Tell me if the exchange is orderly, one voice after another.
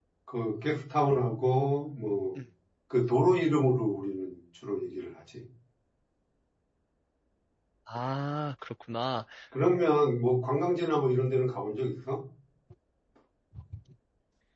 Yes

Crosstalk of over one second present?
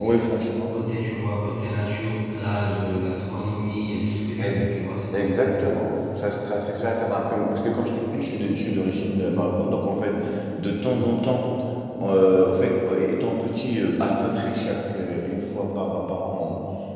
No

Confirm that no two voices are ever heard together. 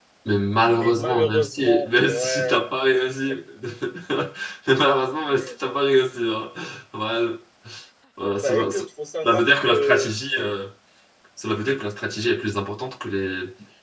No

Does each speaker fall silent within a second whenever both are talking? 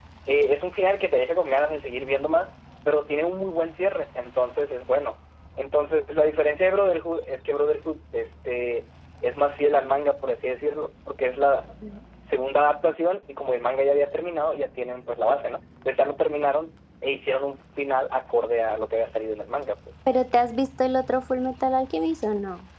Yes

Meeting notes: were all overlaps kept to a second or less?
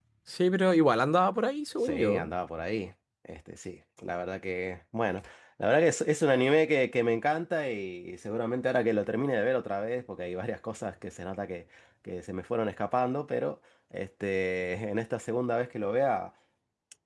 Yes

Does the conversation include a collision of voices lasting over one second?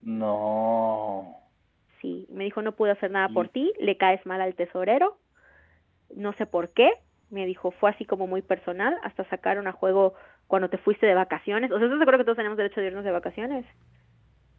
No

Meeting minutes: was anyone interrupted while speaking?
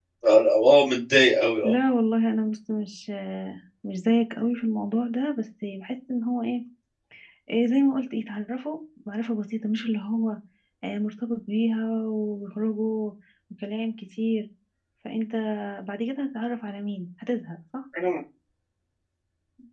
No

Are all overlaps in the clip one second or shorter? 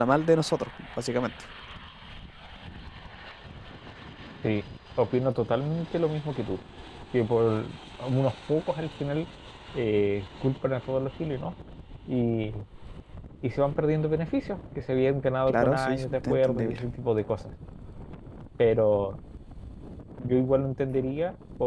No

